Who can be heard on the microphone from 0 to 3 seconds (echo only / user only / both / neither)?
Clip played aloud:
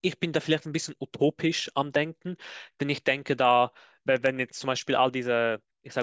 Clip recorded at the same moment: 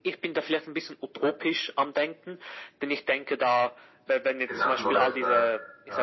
echo only